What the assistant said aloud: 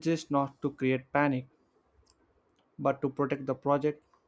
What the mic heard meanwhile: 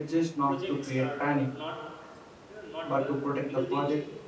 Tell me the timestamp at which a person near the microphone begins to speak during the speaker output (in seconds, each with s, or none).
0.4 s